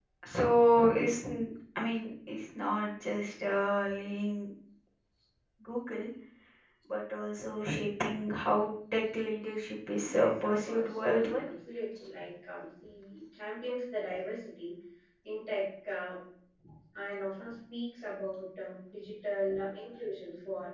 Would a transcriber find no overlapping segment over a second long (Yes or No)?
No